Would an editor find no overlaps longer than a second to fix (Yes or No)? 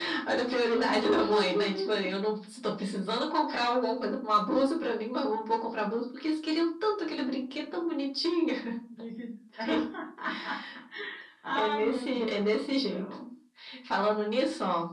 No